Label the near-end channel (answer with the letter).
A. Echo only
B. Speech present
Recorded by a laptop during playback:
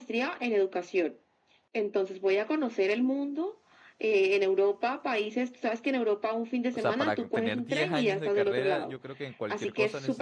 B